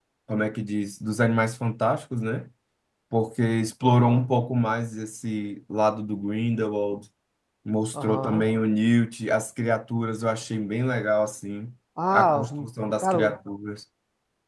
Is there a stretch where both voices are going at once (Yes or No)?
Yes